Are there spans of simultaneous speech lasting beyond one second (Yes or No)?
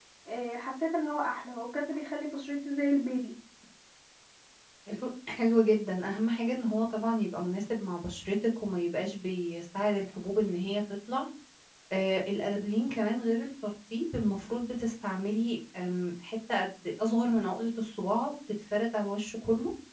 No